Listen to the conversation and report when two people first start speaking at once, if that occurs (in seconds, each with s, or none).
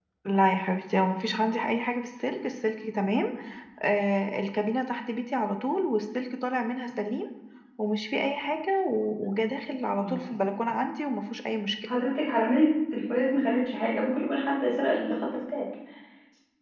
none